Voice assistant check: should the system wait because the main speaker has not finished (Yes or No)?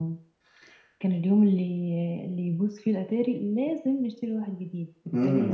No